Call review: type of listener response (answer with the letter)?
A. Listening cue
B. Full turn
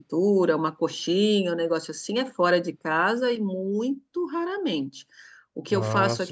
A